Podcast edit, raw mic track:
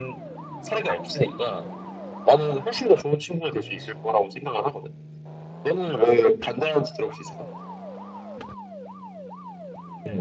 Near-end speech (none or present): none